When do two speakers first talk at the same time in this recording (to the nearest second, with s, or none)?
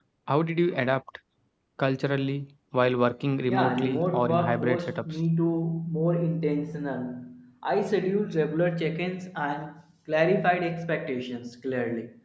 3 s